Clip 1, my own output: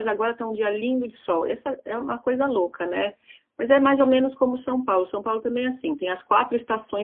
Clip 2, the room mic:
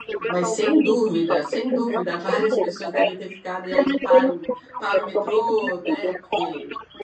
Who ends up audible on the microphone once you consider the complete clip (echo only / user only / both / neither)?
both